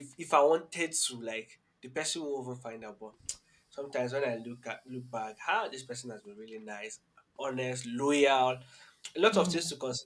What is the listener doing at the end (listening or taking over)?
listening